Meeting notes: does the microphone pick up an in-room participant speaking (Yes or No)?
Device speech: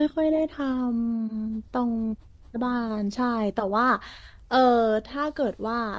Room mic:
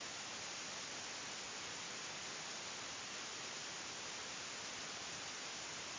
No